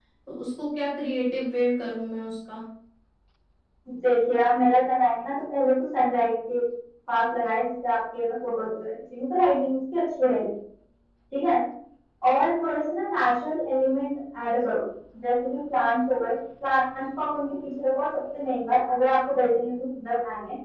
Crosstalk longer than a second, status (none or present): none